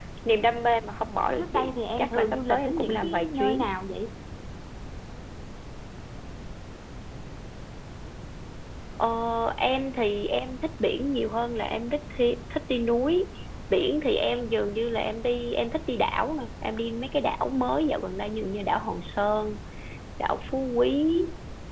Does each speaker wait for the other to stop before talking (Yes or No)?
No